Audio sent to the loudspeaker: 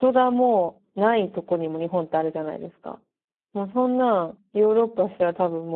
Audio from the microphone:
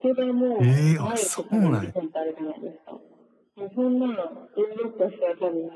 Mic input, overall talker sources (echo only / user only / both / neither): both